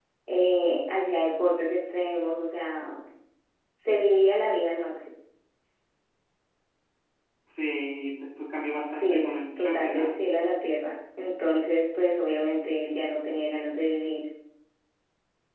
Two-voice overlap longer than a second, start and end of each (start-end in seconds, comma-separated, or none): 8.9-10.1